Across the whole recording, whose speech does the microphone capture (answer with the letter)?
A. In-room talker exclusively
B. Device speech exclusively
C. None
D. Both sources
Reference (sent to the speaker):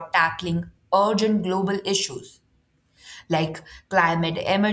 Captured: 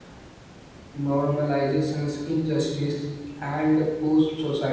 A